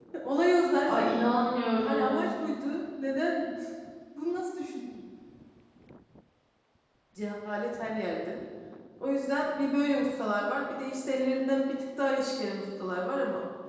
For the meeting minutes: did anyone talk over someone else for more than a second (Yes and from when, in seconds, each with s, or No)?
No